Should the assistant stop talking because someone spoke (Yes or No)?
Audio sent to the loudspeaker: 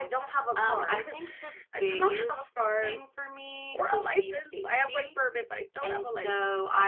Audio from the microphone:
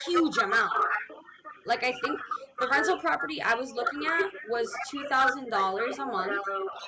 Yes